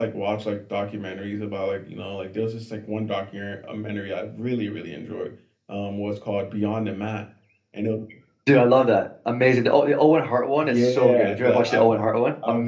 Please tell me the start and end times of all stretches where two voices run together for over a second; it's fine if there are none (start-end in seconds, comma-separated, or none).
10.6-11.8